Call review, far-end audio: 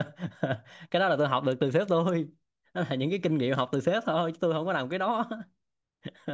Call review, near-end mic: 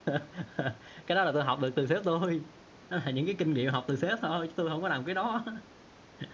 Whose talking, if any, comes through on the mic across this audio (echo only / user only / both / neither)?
echo only